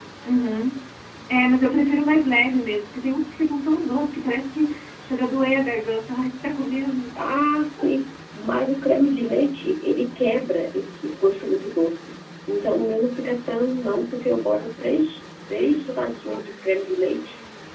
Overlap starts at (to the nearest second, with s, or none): none